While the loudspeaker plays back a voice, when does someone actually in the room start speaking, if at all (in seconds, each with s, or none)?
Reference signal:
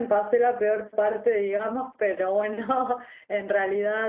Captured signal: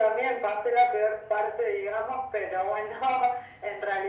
none